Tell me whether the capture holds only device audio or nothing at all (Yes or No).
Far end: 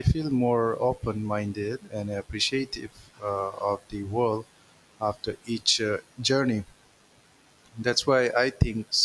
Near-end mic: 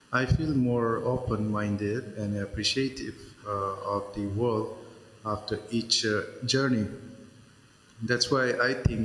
Yes